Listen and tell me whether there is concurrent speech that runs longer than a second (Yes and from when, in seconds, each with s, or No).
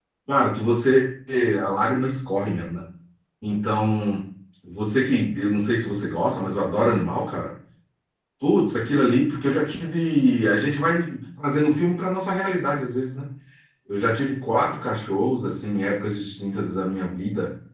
No